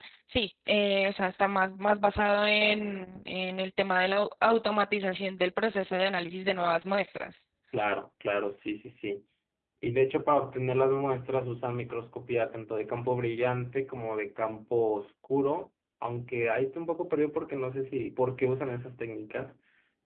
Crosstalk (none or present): none